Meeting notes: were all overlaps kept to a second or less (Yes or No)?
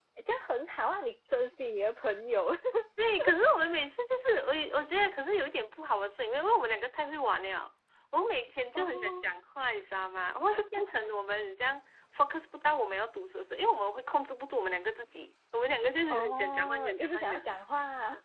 No